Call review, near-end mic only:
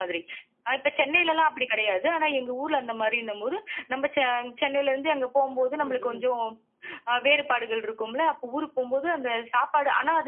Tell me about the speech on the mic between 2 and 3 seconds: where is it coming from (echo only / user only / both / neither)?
echo only